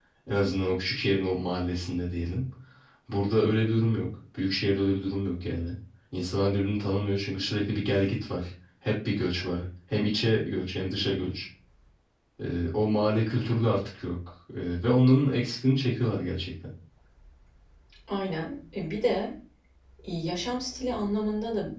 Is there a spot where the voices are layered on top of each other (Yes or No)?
No